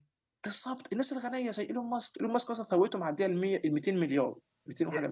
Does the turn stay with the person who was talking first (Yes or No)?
No